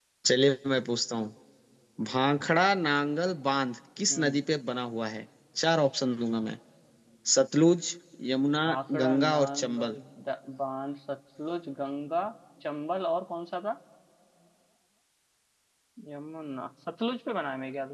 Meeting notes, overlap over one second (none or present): present